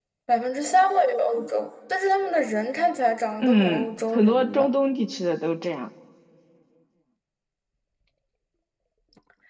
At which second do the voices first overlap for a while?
3.4 s

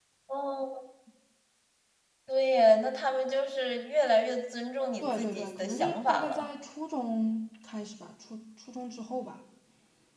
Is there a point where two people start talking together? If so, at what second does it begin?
5.0 s

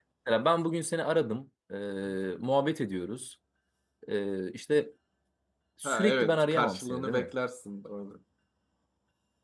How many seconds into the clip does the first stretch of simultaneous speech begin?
5.8 s

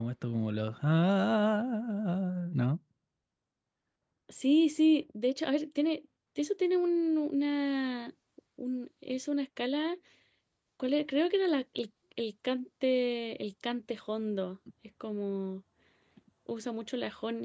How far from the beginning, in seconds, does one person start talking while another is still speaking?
none

